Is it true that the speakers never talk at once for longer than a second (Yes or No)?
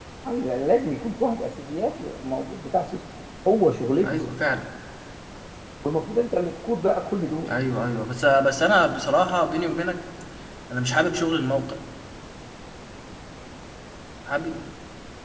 Yes